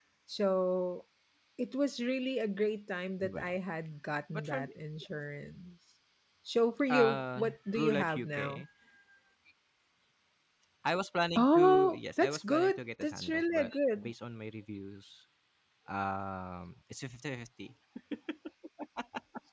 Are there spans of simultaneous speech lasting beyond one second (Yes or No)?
Yes